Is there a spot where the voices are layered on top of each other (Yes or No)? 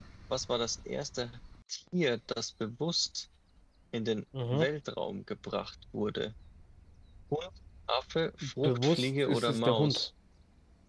Yes